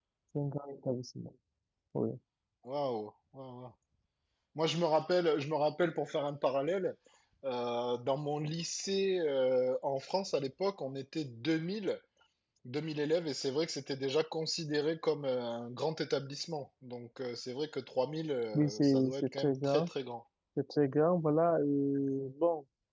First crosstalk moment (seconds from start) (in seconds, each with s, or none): 18.5 s